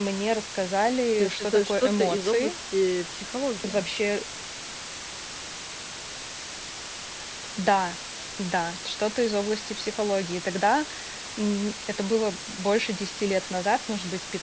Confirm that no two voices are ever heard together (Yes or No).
No